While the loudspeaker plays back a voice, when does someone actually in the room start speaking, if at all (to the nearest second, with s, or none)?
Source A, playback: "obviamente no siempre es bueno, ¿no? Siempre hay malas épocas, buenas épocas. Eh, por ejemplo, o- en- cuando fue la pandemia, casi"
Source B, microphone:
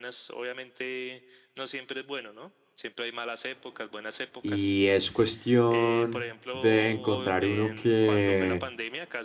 4 s